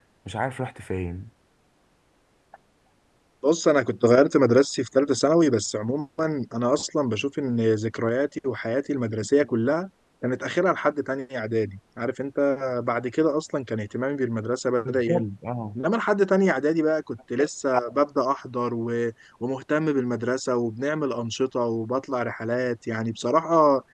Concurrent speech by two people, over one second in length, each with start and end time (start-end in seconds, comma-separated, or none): none